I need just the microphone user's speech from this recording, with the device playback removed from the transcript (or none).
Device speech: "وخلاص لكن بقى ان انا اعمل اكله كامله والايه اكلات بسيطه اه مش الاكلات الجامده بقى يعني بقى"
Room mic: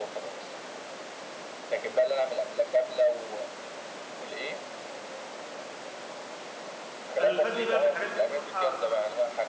انا اللي فادني بقى في الحاجات دي بصراحه